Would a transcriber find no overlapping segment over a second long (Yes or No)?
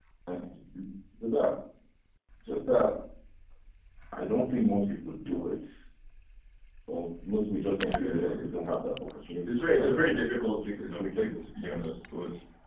No